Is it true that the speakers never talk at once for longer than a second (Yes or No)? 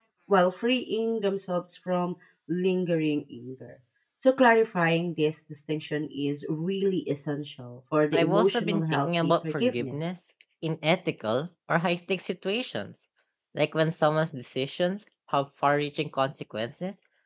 No